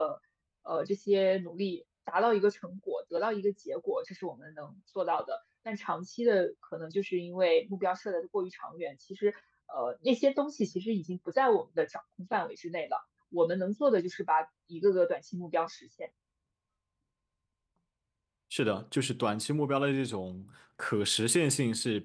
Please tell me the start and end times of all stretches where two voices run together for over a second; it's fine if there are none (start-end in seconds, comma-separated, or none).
none